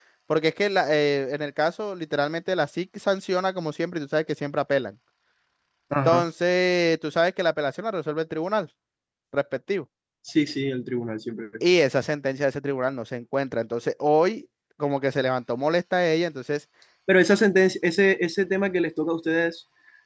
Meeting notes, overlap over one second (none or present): none